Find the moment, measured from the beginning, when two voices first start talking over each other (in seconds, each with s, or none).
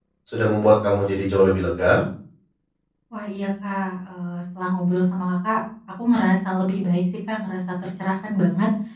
none